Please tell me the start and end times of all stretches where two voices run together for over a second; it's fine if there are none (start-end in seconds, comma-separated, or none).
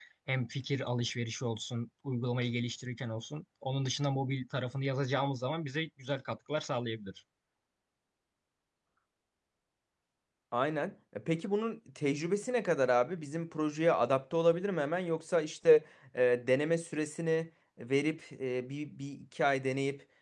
none